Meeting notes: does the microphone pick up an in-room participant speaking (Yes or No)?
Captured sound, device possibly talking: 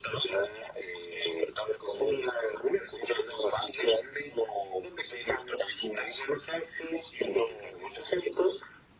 No